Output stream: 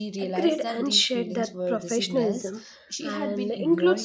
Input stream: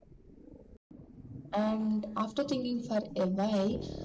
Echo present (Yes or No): No